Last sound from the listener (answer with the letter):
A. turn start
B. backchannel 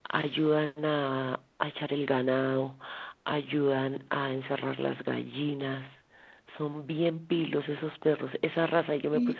B